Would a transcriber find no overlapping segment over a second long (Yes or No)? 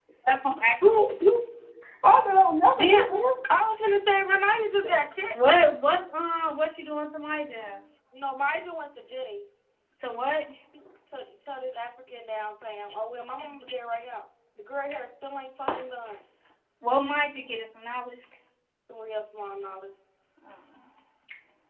Yes